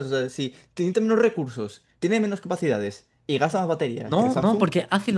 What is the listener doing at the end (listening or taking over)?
taking over